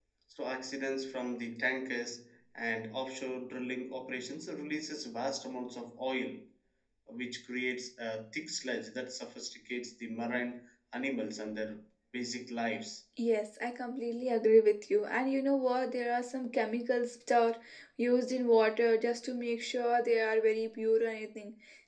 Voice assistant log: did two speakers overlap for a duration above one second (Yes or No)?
No